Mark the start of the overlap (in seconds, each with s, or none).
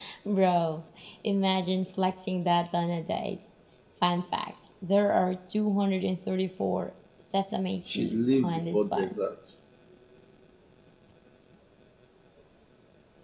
7.9 s